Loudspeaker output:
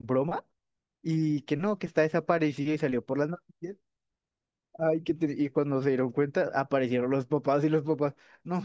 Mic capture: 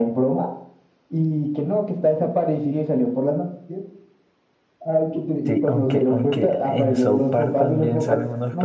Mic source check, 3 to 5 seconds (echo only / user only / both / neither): echo only